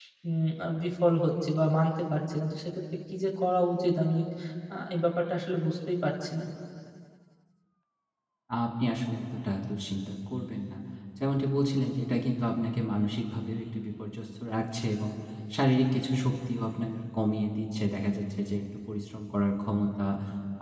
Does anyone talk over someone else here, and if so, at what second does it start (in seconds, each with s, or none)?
none